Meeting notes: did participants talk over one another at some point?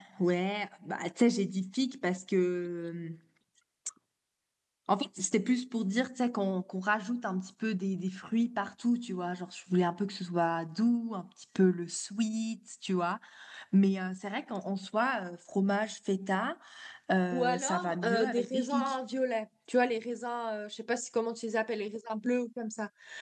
Yes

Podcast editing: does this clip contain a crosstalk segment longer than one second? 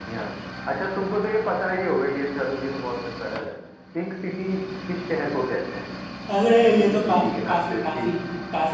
Yes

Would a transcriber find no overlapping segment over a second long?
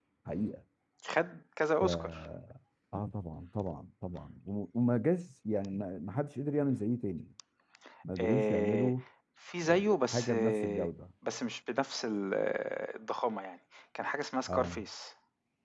No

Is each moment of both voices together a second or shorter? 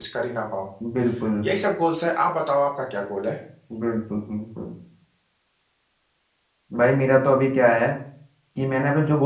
Yes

